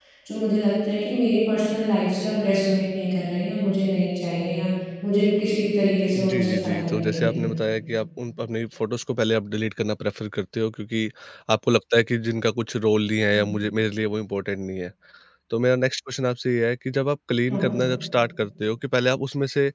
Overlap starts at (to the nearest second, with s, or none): 6 s